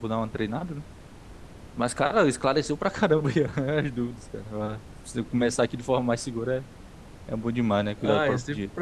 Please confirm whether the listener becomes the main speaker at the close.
Yes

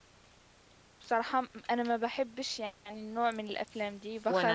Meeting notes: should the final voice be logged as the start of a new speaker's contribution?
Yes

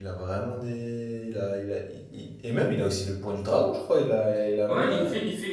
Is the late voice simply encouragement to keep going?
No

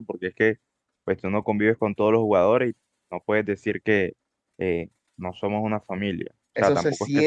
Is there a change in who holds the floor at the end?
Yes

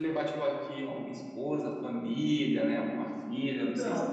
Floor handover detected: Yes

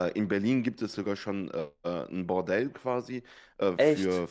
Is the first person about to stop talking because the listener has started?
No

